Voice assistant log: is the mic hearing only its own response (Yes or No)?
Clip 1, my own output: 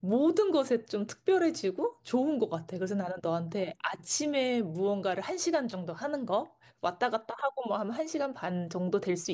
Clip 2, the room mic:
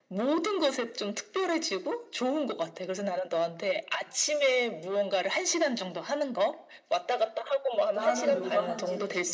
No